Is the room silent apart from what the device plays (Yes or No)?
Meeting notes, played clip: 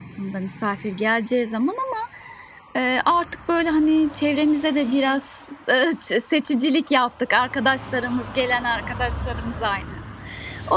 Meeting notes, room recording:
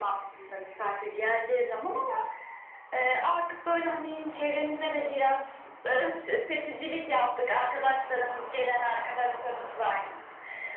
Yes